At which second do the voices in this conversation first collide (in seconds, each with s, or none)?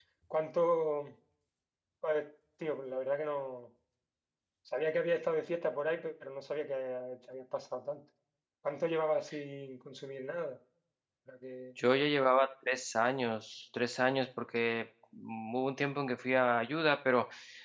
none